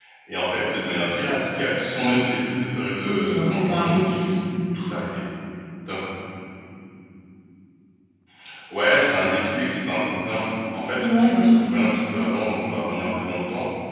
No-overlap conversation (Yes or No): No